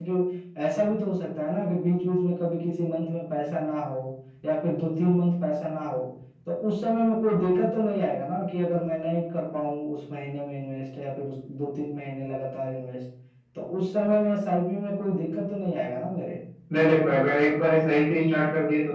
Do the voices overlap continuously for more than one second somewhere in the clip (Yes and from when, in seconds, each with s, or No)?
No